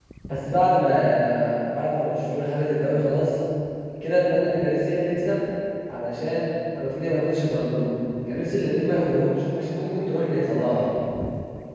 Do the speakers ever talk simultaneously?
No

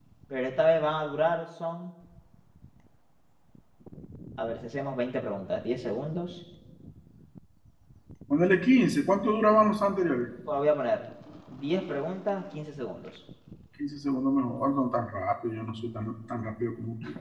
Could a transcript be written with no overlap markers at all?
Yes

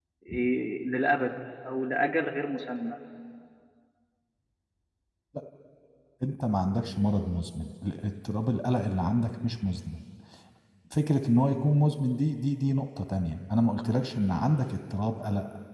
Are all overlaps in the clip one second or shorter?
Yes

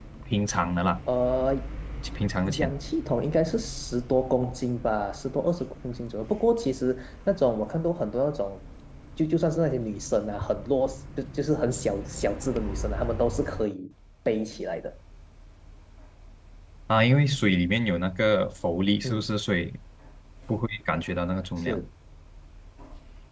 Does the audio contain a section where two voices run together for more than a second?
No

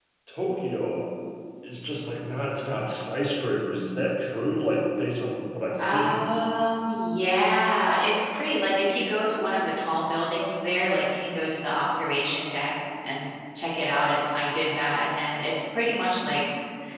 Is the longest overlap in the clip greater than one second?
No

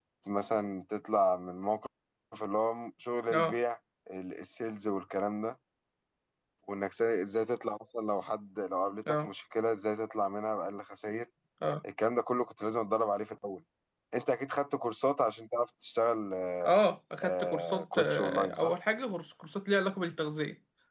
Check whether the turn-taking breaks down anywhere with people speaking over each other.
Yes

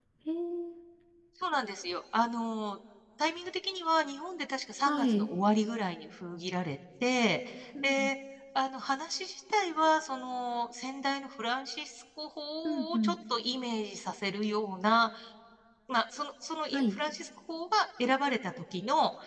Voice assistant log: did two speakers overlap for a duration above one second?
No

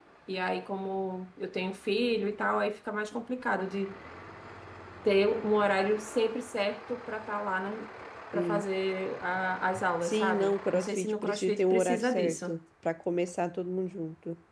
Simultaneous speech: Yes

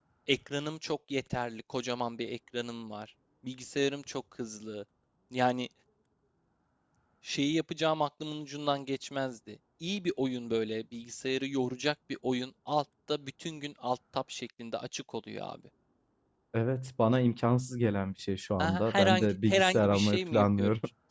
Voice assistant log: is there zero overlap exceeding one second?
No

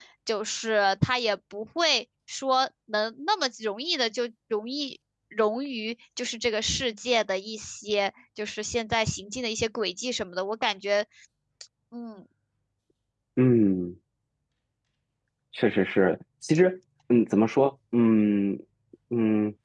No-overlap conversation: Yes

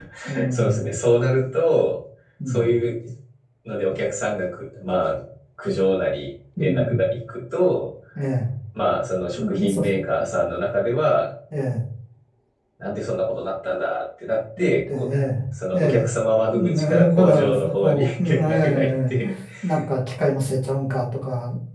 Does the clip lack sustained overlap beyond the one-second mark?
No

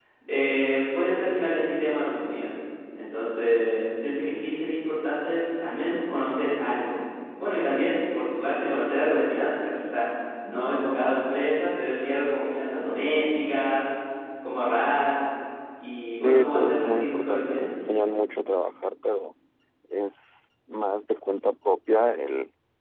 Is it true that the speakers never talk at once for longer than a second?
No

